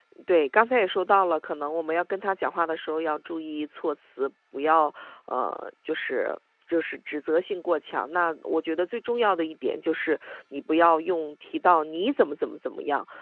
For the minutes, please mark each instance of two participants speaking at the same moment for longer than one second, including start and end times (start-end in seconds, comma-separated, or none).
none